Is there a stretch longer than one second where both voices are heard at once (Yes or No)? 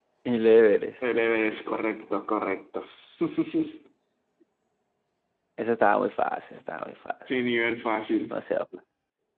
No